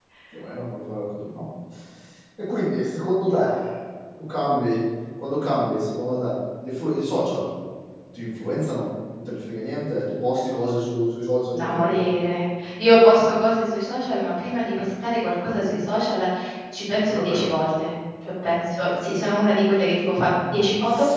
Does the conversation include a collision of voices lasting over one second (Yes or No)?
No